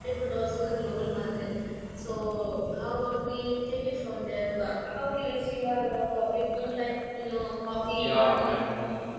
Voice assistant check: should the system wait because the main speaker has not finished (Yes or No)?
No